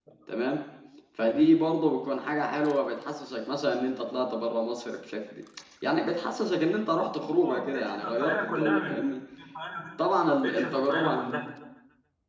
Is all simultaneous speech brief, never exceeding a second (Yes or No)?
No